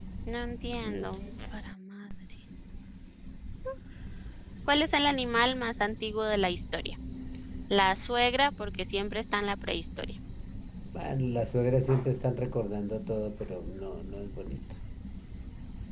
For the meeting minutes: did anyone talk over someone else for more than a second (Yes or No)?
No